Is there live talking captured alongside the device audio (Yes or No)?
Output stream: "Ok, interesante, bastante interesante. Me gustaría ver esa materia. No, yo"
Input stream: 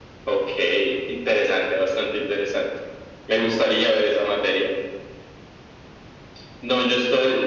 No